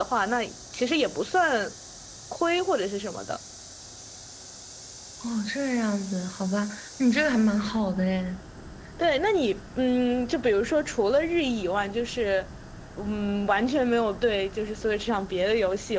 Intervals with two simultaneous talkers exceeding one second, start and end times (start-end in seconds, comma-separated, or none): none